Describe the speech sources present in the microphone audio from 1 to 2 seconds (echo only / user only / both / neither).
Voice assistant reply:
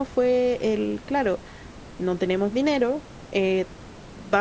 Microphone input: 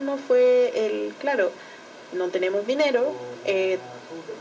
echo only